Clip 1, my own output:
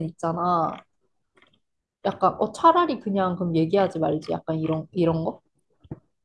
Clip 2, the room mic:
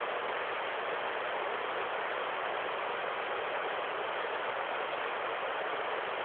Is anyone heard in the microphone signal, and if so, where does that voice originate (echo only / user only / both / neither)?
neither